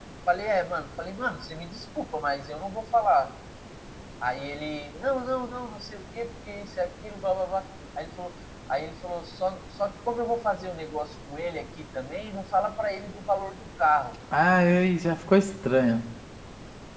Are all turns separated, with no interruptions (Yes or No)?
Yes